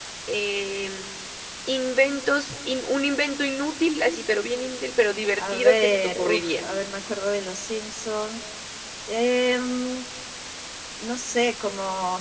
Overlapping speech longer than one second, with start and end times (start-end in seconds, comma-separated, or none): 5.4-6.6